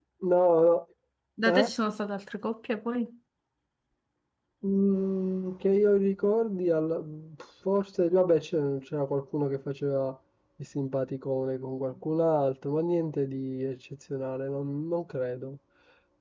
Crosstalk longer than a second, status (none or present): none